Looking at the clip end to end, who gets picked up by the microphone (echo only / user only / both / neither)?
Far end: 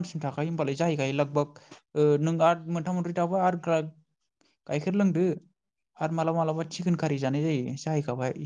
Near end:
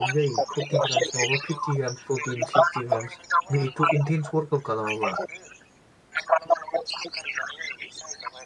both